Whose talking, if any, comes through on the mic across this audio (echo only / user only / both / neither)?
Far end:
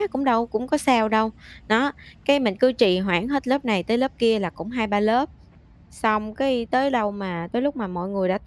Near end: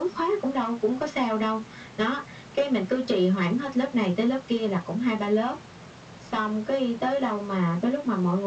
echo only